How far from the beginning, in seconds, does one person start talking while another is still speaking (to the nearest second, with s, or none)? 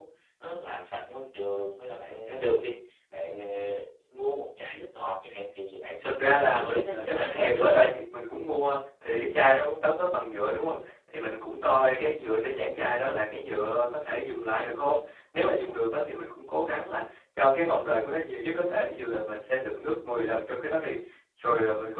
6 s